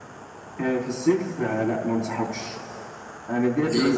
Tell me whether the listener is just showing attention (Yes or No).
Yes